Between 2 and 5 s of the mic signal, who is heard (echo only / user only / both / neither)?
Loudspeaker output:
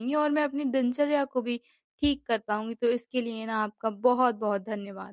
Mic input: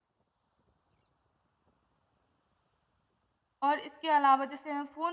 user only